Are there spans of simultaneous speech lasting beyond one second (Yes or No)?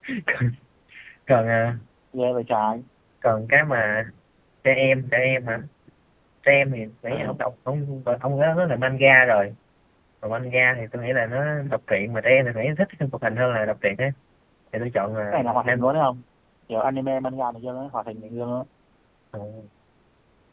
No